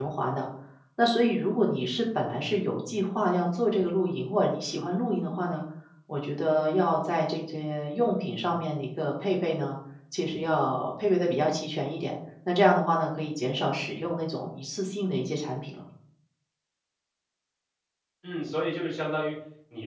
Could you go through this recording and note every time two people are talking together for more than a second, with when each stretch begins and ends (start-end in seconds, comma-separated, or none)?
none